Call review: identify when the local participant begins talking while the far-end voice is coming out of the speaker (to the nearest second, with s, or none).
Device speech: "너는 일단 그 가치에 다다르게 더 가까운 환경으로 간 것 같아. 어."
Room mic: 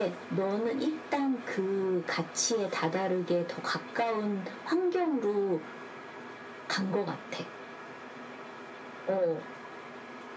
none